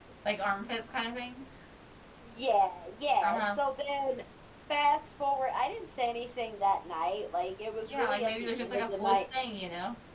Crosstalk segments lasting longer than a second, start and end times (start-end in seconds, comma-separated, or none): 7.9-9.2